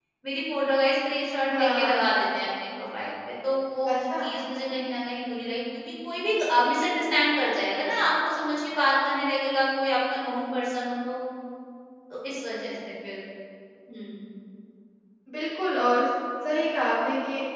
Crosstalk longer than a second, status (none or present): none